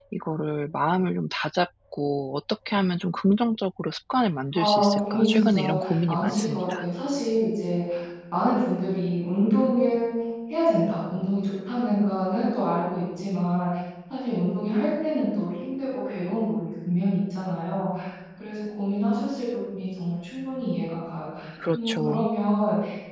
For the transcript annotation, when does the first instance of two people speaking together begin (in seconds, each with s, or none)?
4.5 s